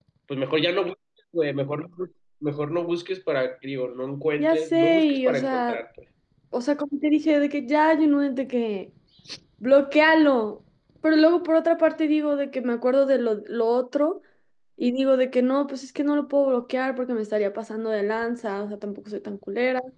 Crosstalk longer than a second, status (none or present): present